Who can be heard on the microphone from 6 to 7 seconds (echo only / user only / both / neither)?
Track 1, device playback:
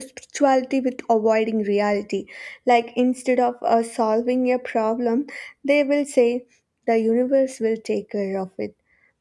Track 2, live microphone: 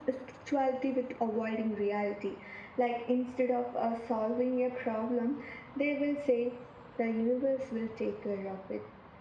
echo only